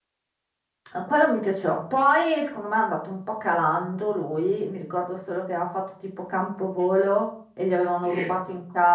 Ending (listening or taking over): listening